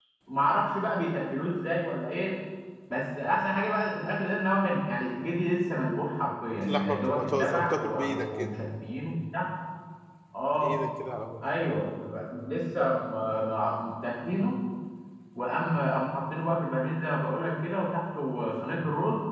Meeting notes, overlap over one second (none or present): present